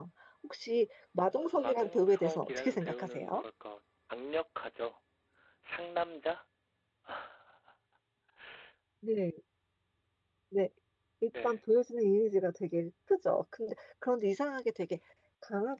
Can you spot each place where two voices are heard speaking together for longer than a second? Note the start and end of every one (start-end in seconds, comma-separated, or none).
1.6-3.3